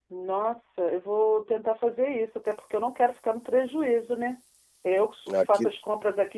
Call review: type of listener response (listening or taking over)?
listening